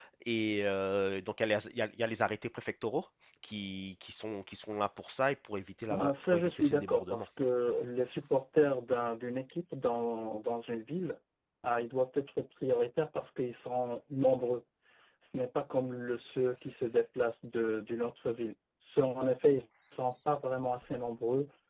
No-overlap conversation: No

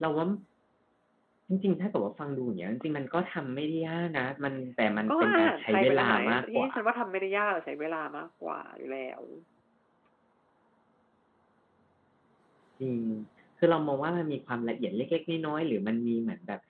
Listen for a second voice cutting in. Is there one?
Yes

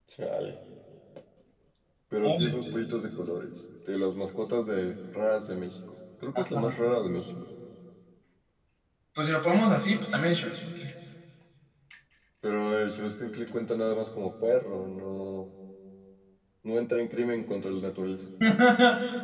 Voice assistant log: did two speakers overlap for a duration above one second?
No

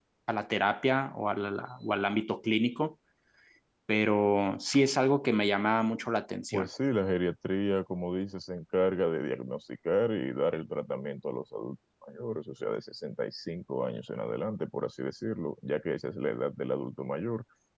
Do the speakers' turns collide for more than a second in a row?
No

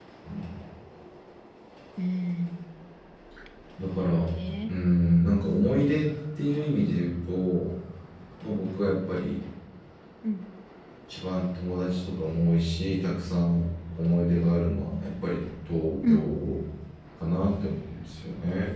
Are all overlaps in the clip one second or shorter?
Yes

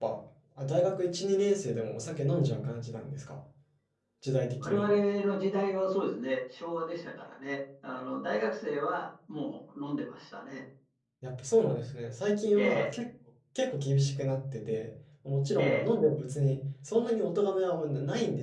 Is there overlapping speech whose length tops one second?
No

